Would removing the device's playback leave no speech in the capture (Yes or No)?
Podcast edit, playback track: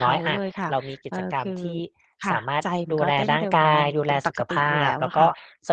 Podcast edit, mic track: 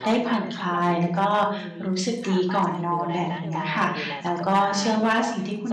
No